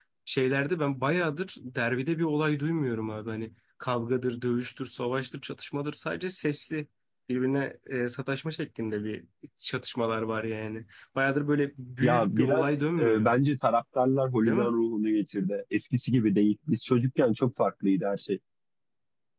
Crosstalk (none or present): present